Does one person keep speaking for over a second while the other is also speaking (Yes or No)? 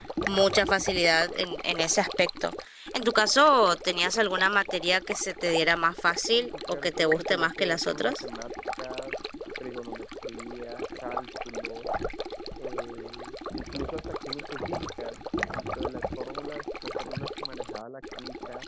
Yes